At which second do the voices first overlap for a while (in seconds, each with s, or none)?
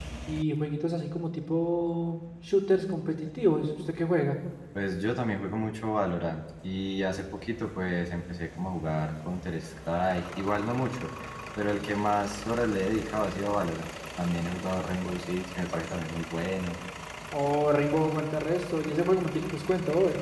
none